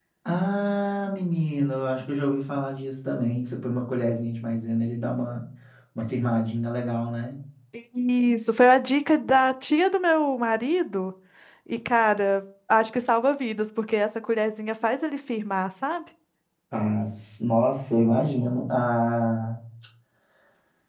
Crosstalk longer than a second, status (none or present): none